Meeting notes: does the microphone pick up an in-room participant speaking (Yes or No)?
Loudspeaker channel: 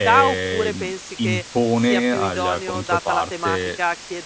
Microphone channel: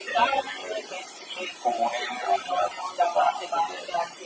No